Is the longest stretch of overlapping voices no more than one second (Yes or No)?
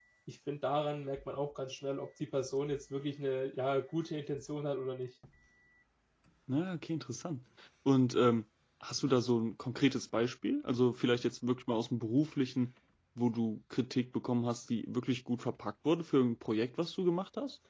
Yes